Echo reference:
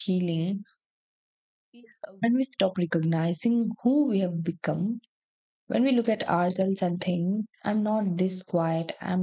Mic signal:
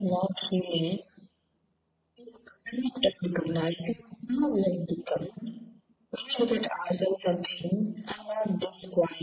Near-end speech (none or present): none